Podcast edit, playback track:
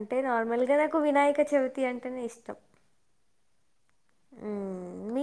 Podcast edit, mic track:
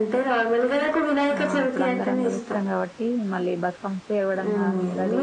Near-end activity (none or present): present